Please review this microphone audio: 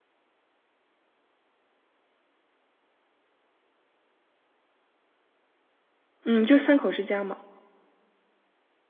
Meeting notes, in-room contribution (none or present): present